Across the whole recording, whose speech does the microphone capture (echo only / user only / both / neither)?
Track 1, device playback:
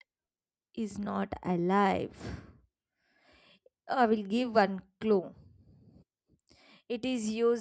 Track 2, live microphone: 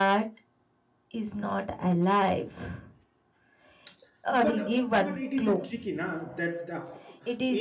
both